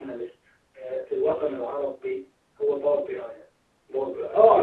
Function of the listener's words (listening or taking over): taking over